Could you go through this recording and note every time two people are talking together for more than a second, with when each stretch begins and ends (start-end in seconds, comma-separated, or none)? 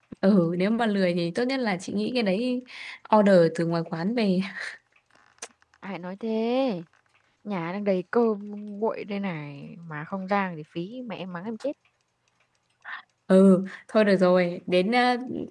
none